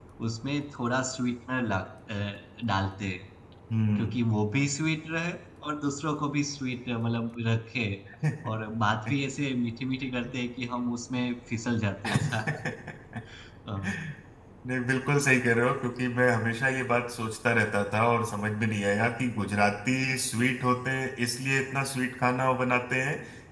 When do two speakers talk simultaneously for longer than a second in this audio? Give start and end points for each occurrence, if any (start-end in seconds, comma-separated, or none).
none